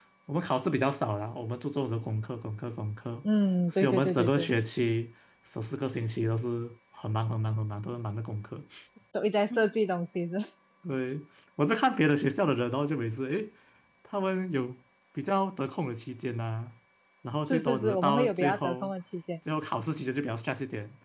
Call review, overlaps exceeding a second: present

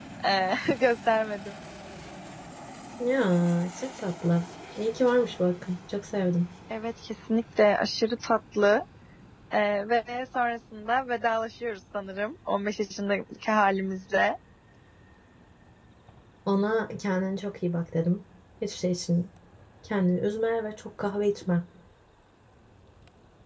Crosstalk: none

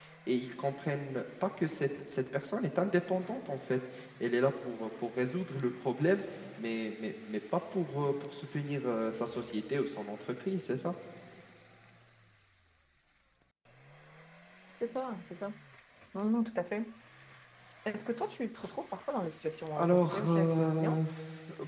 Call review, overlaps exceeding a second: present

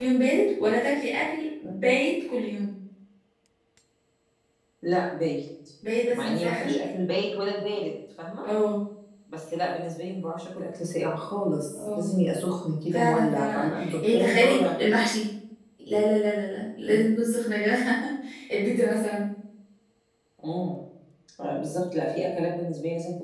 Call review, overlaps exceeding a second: present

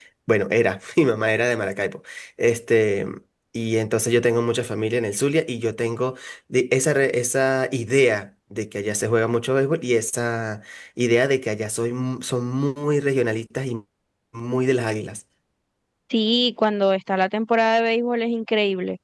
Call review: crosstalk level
none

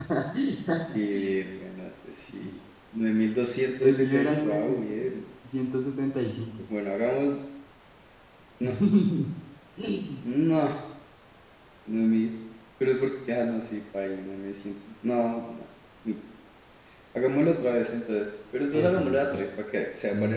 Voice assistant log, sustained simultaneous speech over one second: present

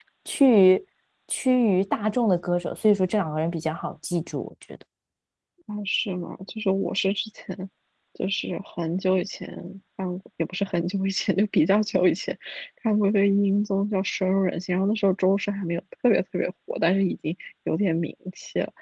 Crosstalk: none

